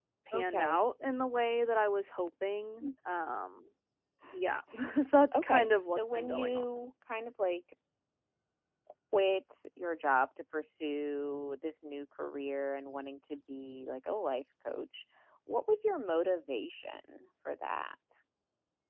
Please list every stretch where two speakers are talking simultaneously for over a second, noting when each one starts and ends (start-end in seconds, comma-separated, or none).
5.3-6.6